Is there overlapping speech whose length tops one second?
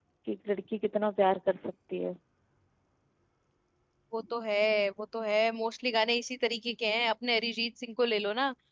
No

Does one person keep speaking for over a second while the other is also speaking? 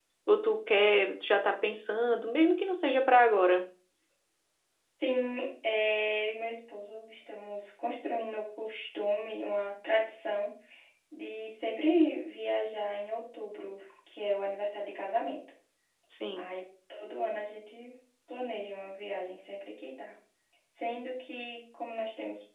No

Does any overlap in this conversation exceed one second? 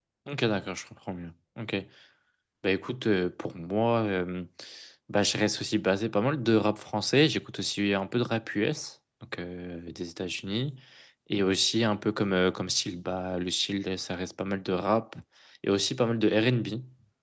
No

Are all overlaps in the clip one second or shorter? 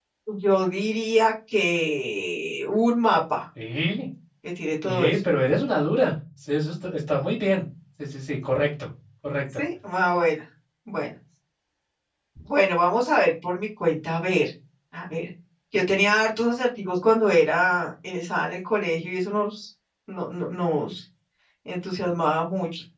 Yes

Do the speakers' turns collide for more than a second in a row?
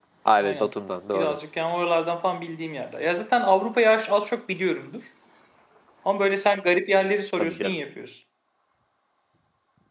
No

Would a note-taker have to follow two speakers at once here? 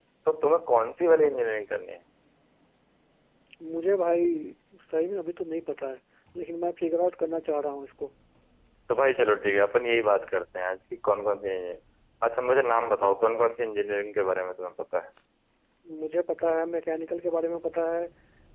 No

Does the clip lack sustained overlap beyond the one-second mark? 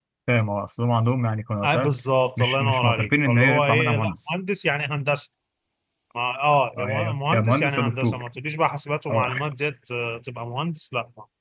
No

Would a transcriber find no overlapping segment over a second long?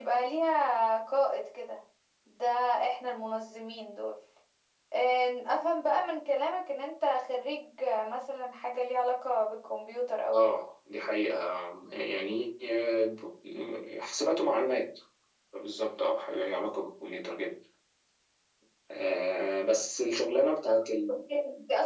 Yes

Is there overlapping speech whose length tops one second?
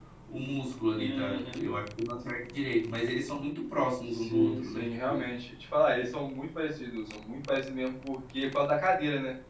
Yes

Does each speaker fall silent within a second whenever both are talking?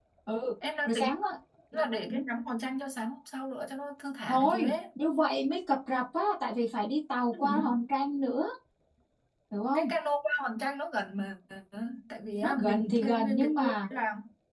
No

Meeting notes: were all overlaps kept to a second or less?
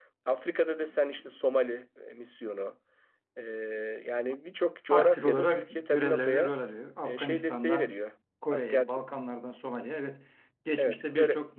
No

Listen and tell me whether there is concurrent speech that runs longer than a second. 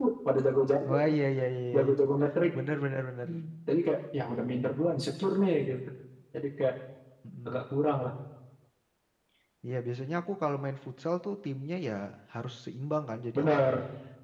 No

